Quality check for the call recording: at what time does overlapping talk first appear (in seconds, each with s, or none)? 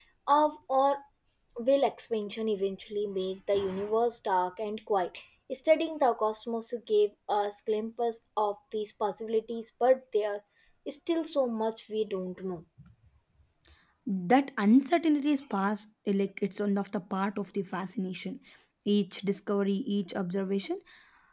none